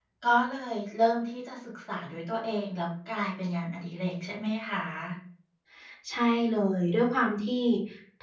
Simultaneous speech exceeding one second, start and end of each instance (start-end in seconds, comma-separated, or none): none